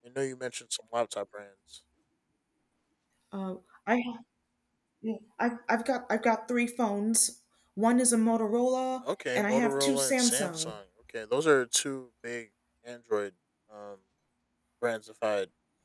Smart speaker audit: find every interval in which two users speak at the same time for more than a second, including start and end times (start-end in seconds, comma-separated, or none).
9.3-10.7